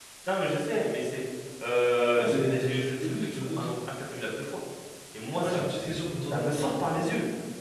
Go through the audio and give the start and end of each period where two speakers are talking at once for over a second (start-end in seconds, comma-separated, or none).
2.2-3.7